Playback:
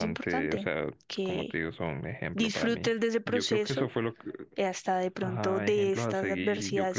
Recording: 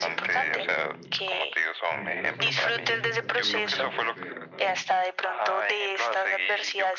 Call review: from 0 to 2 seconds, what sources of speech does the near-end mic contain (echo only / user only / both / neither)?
both